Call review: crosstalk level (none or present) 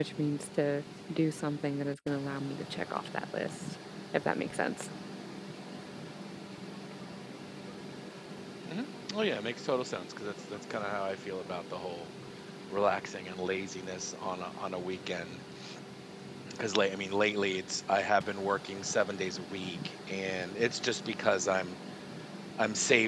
none